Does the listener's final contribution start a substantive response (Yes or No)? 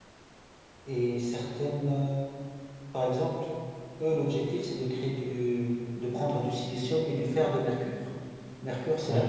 No